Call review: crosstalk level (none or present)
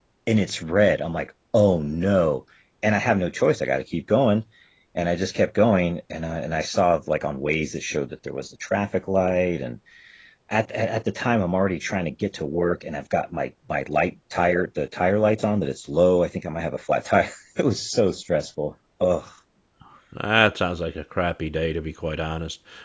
none